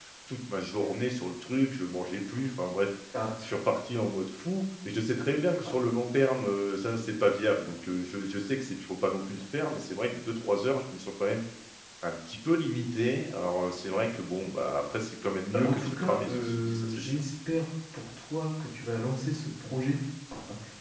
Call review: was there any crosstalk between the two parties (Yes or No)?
Yes